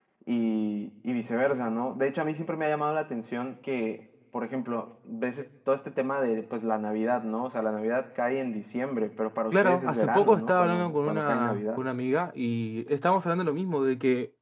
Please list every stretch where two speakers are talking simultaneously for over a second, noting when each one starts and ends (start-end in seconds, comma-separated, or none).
9.5-11.8